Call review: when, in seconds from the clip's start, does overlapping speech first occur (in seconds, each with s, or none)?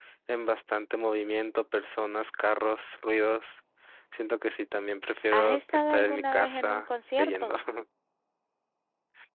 5.3 s